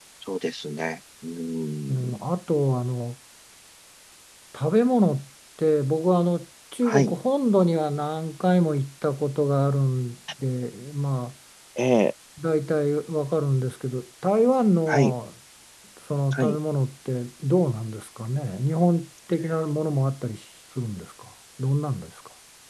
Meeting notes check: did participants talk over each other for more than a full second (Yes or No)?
No